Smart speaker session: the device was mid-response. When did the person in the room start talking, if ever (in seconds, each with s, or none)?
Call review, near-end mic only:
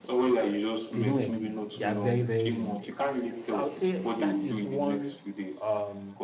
0.9 s